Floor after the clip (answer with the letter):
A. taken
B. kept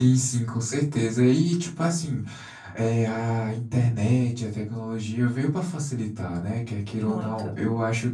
B